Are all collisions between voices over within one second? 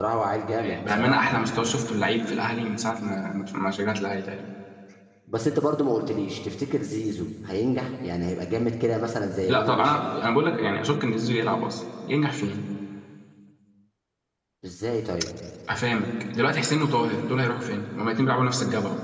No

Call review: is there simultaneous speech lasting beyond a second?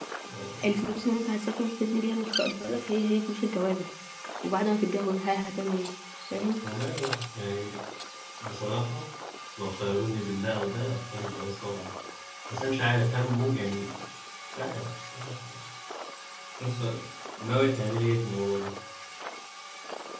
No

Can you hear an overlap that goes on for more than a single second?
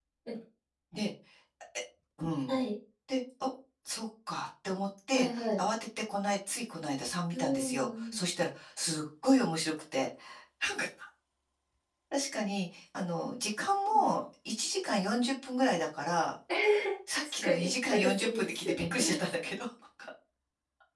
Yes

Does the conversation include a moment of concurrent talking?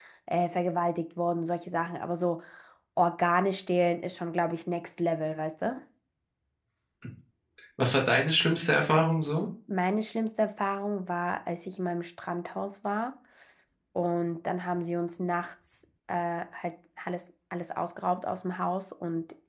No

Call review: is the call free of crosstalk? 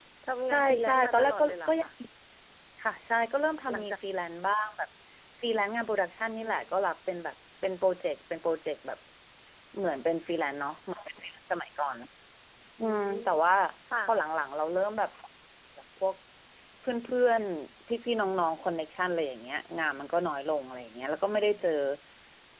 No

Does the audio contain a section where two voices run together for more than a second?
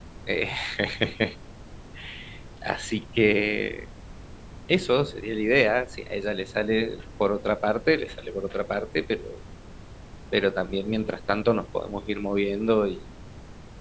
No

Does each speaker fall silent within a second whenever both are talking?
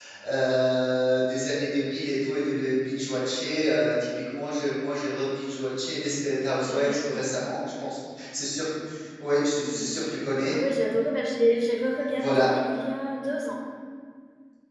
Yes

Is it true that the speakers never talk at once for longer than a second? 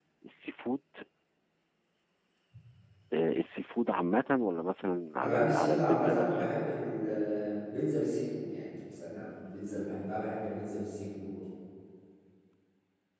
No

